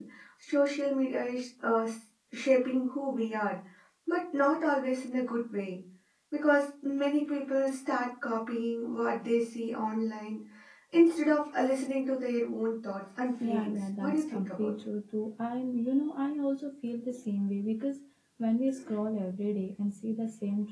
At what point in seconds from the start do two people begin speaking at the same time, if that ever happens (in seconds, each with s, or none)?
13.4 s